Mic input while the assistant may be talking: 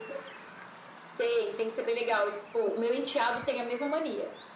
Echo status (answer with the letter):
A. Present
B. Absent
A